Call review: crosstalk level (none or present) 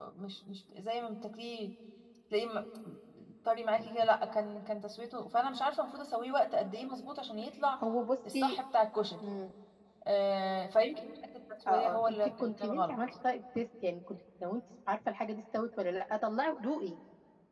present